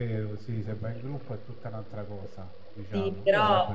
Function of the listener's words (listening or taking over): taking over